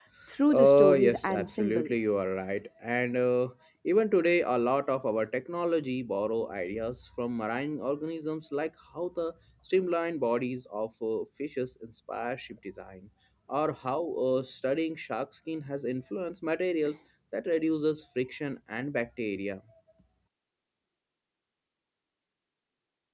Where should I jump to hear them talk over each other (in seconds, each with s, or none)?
0.5 s